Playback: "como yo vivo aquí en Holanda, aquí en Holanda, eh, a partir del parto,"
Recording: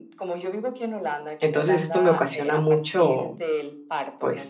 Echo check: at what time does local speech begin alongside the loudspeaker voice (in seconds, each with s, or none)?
1.4 s